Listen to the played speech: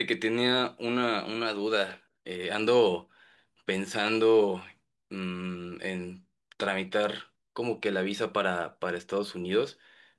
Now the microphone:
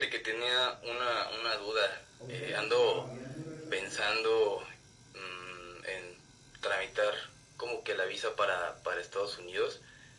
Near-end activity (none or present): present